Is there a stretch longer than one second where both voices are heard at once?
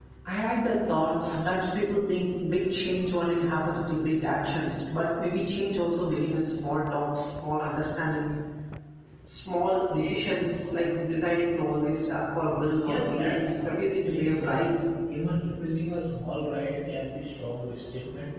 Yes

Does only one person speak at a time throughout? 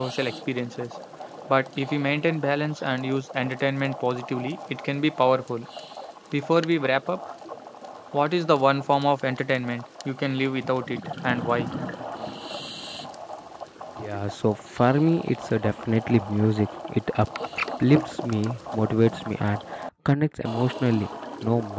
Yes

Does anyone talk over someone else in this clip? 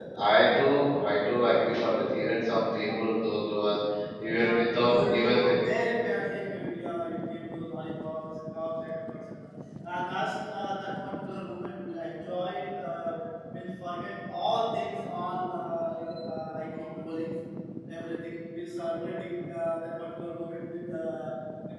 Yes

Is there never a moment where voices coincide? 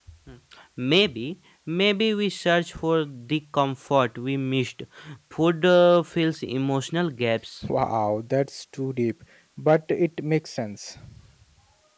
Yes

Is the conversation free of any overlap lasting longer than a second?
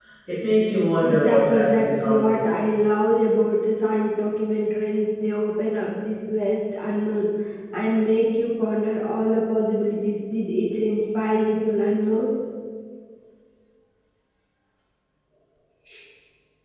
No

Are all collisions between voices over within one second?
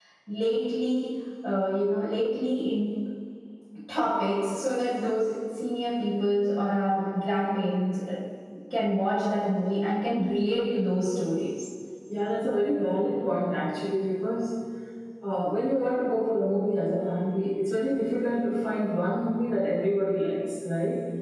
Yes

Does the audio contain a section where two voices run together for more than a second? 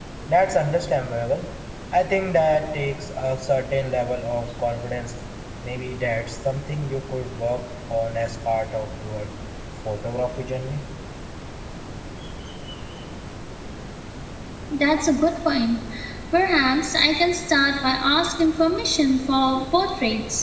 No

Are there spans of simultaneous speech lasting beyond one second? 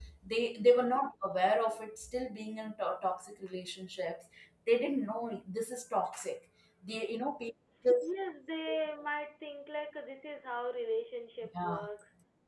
No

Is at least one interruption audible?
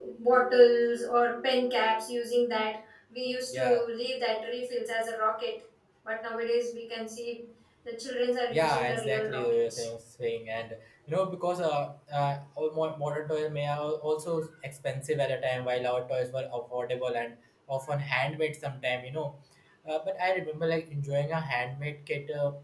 Yes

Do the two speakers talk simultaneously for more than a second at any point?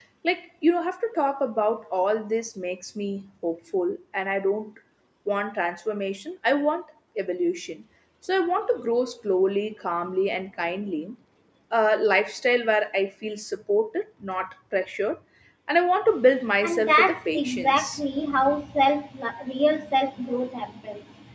Yes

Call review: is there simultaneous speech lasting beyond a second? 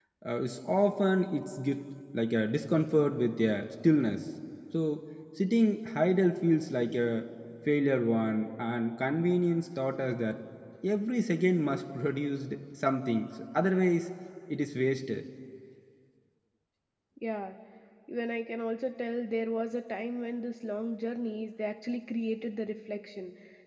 No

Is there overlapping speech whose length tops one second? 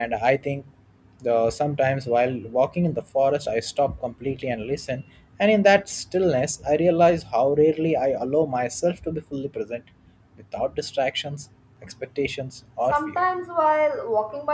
No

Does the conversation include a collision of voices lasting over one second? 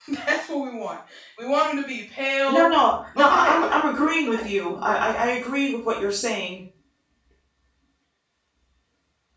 Yes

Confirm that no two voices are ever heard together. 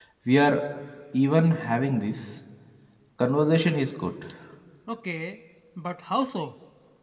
Yes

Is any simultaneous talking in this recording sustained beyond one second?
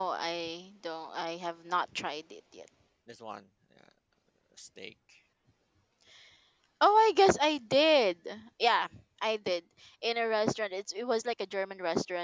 No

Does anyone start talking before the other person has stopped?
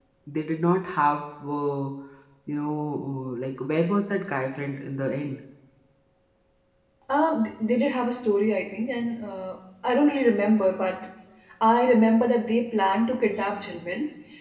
No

